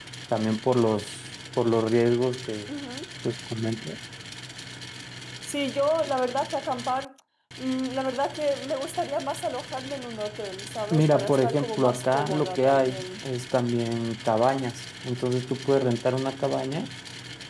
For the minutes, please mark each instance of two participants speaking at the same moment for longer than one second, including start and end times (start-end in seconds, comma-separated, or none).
10.9-13.0